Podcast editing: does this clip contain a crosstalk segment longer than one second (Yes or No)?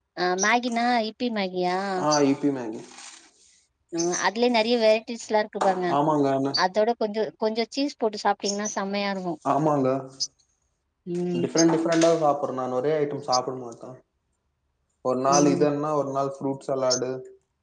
No